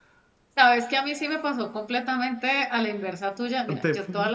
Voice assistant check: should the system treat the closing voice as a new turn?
No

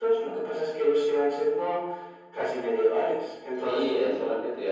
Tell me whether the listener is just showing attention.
No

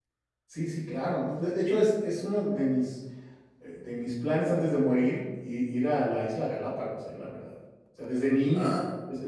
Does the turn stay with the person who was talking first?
Yes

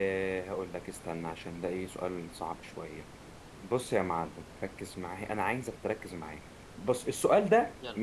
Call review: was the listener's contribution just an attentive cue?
Yes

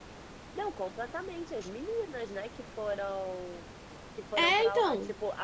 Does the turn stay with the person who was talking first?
Yes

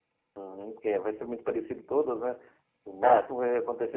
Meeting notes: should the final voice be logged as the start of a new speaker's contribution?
No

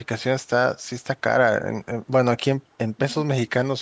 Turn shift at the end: No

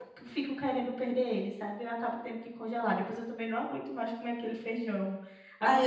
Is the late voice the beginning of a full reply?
Yes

